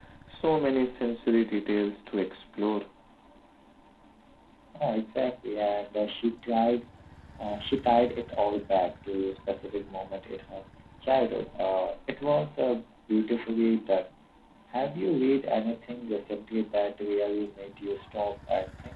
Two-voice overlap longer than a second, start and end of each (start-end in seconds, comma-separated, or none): none